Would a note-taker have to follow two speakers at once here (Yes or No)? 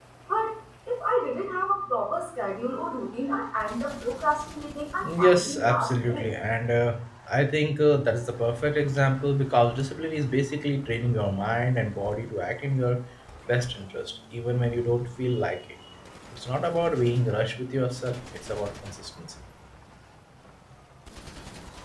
Yes